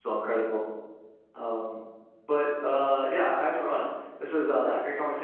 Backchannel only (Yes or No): Yes